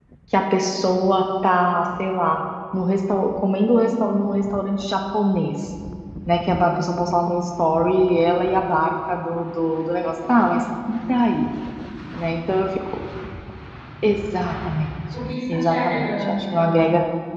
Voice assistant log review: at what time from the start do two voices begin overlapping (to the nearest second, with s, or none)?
15 s